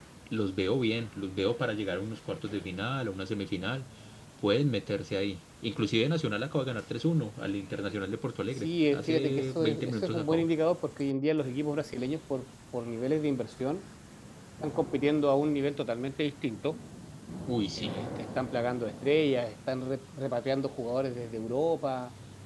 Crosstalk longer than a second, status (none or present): present